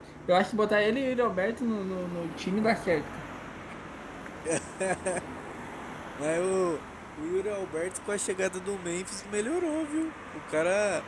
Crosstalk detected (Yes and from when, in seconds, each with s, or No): No